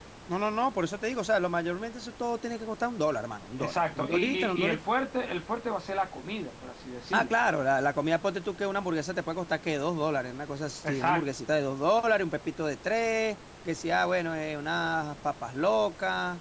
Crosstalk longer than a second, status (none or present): present